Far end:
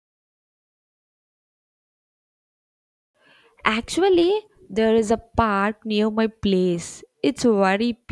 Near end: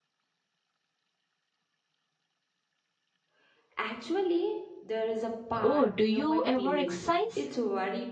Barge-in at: 5.6 s

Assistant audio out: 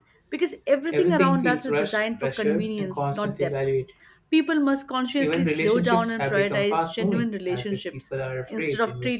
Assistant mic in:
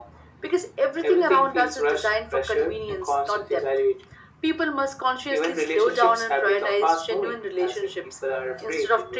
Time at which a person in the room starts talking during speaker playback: none

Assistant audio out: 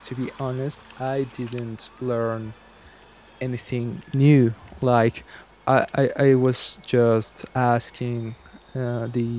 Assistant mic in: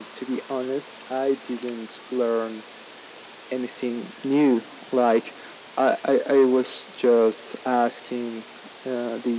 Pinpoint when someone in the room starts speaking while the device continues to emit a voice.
none

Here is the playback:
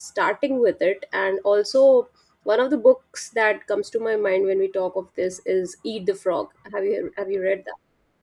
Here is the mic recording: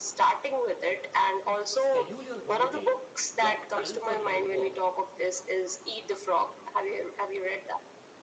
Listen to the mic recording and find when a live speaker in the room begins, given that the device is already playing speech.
1.7 s

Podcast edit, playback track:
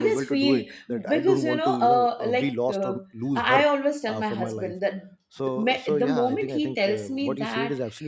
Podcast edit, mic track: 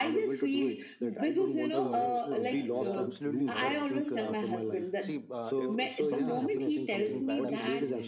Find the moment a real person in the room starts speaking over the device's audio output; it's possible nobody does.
1.7 s

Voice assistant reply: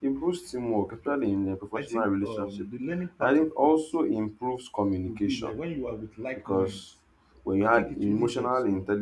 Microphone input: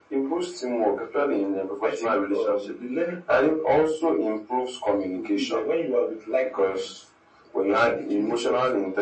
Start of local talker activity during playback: none

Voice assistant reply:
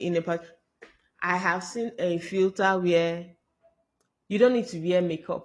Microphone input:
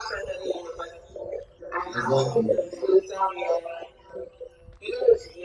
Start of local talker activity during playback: 1.9 s

